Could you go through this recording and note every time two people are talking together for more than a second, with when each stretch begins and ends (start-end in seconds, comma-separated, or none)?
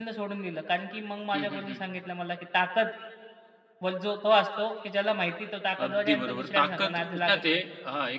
5.8-7.4